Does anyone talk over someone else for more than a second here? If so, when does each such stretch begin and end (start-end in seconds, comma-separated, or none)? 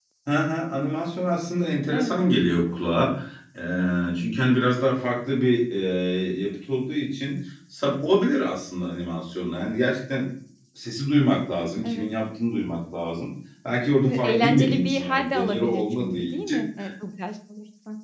14.1-16.6